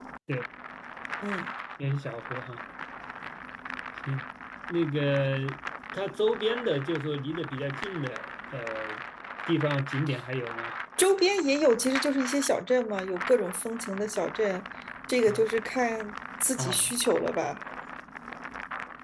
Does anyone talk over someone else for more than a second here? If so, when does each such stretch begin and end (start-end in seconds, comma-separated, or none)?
none